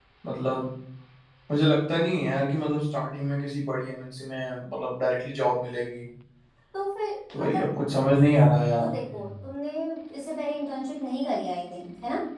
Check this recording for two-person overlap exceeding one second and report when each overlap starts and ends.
none

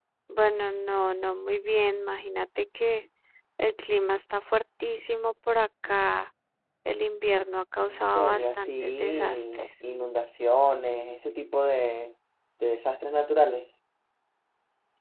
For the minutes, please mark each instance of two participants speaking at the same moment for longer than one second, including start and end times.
7.8-9.7

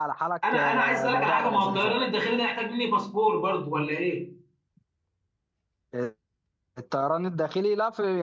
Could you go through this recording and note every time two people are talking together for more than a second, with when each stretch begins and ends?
0.5-1.9

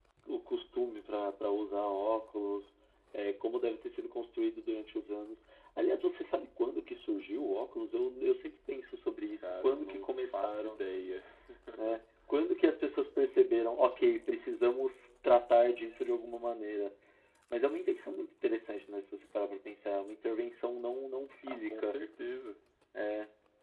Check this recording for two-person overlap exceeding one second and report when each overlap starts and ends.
9.4-10.8

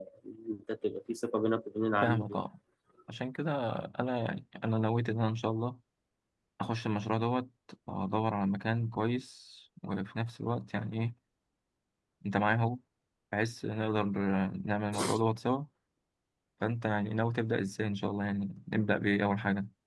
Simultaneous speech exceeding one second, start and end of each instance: none

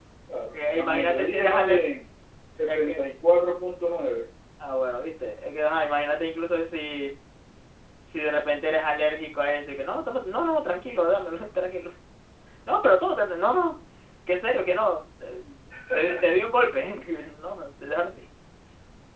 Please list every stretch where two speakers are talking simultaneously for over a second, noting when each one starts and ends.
0.5-1.9

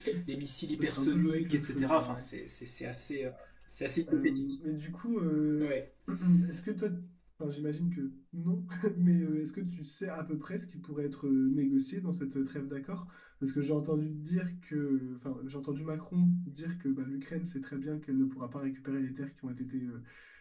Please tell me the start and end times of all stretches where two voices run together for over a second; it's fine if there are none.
0.8-2.3

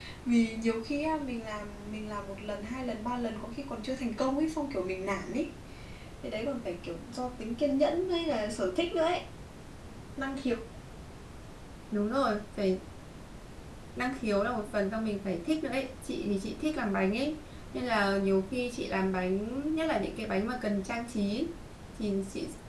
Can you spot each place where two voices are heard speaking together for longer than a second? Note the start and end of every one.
none

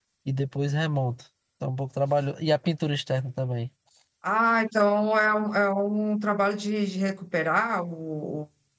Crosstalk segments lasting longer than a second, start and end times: none

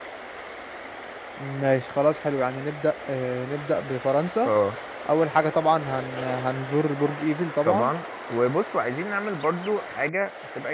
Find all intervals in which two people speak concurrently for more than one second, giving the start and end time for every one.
none

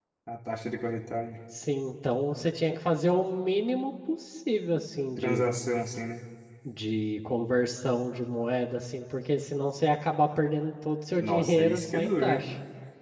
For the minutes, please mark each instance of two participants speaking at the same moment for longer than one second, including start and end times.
11.2-12.4

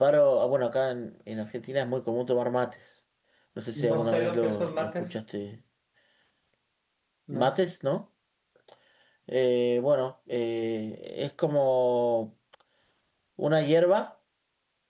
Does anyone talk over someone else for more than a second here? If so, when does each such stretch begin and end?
3.9-5.2

